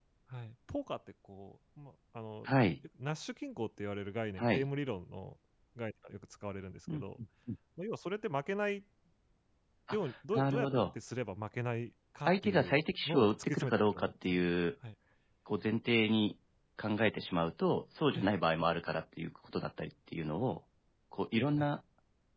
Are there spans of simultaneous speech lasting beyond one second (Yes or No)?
Yes